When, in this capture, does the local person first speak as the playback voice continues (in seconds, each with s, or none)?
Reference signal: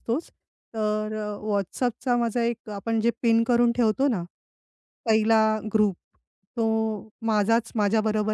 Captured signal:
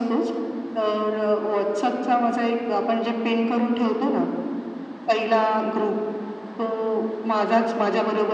none